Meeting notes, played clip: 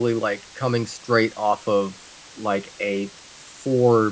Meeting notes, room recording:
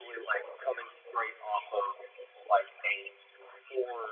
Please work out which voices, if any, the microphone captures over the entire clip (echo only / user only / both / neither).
echo only